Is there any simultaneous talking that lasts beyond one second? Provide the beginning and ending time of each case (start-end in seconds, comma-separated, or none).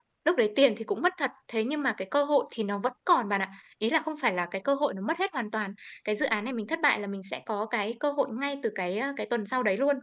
none